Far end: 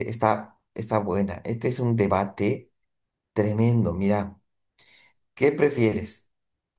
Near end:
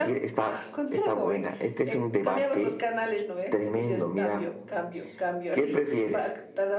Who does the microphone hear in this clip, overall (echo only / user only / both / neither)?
both